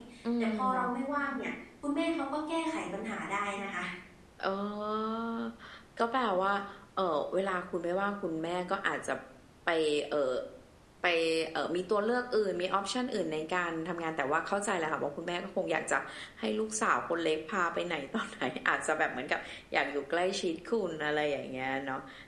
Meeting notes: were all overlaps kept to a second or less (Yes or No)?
Yes